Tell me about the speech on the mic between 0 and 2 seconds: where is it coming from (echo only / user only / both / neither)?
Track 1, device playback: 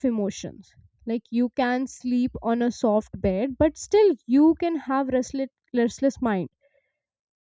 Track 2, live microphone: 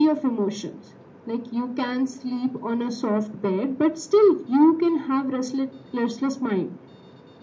echo only